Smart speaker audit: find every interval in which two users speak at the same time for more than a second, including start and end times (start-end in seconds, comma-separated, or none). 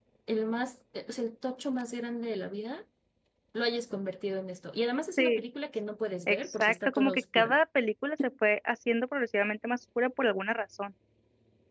6.3-7.6